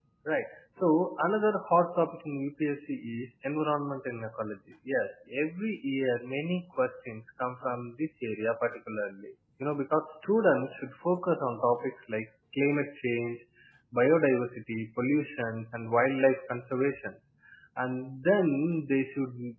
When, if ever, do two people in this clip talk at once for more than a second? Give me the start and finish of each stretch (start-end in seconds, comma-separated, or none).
none